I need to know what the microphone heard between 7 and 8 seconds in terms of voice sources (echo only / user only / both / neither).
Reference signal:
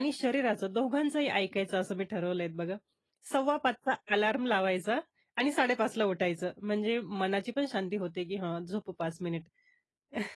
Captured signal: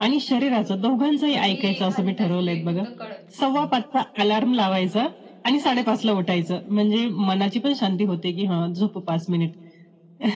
echo only